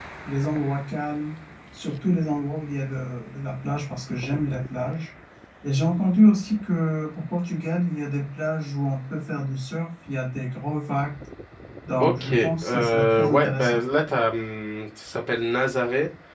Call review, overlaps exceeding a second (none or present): present